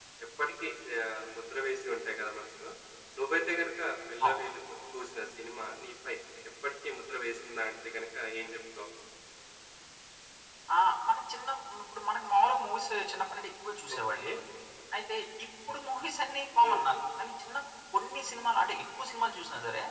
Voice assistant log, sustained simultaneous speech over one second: none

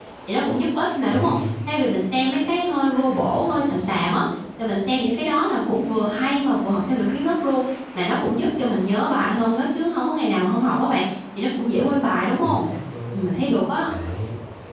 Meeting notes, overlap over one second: none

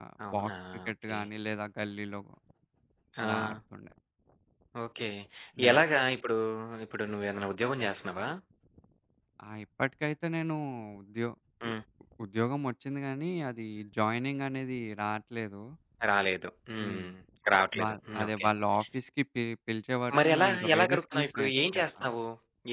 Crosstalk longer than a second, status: present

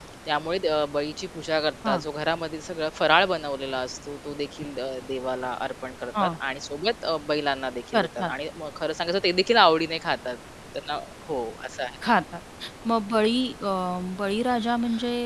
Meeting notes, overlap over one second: none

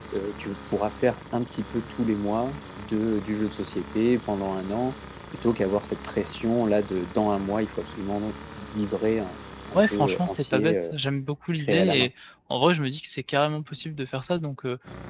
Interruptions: present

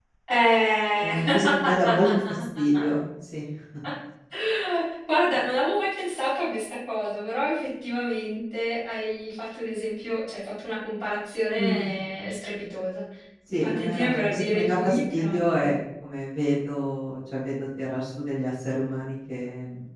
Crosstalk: present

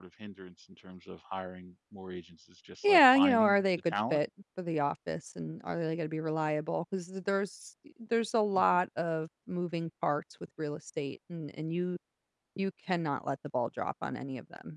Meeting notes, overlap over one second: present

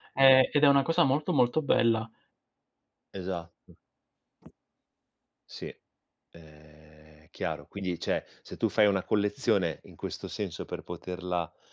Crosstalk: none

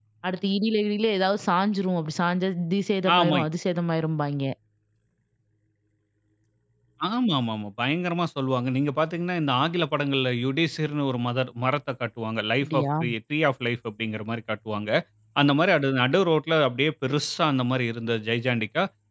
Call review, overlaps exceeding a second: none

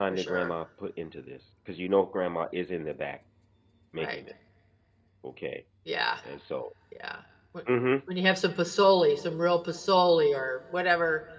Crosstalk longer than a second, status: none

